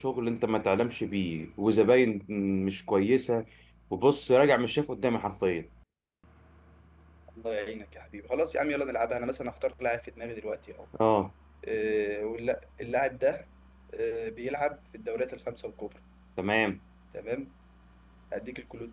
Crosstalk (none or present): none